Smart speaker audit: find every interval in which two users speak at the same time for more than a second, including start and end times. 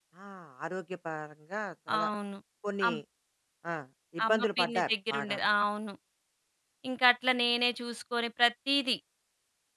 4.2-5.5

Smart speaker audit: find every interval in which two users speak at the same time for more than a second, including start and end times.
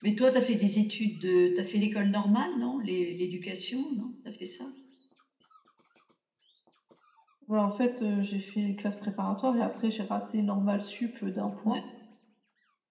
none

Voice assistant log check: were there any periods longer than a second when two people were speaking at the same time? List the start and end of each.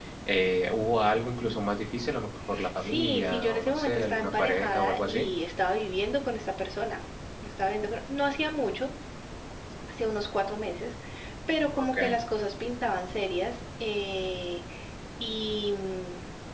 2.8-5.3

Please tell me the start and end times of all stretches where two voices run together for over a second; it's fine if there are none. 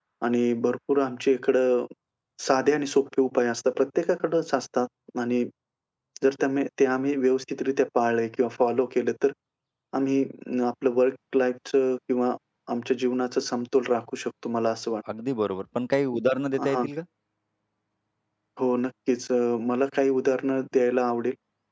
none

